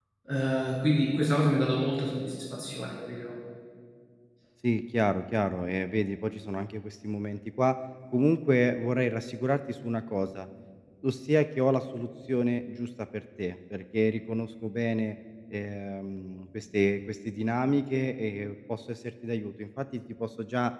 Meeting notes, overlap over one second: none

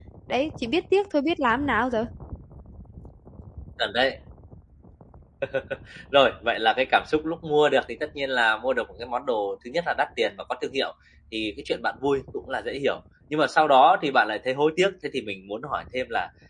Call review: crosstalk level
none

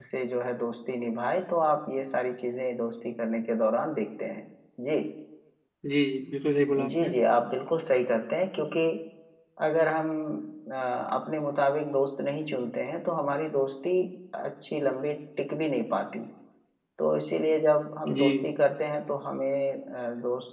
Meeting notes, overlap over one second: none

